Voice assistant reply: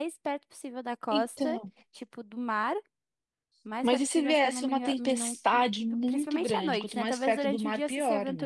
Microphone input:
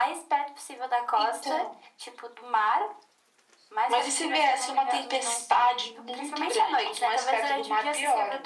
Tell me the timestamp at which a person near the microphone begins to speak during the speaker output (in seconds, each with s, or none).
none